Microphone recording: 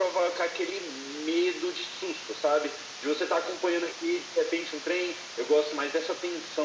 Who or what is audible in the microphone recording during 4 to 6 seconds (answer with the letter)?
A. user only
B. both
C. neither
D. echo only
D